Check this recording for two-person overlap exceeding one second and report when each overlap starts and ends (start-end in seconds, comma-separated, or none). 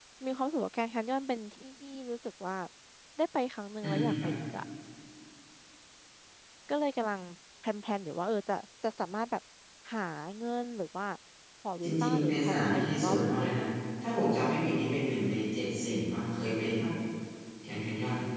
11.8-13.6